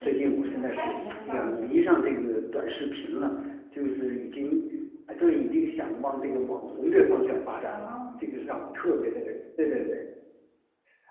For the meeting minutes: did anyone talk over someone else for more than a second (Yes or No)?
Yes